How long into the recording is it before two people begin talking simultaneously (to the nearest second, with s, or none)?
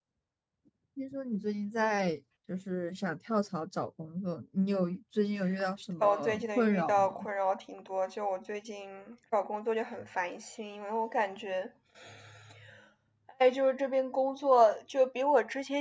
6 s